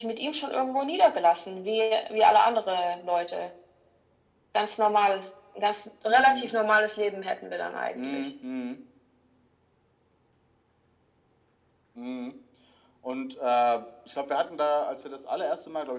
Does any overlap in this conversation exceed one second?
No

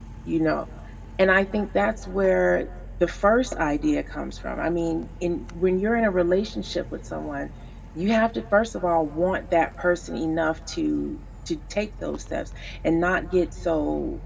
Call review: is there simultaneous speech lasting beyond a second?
No

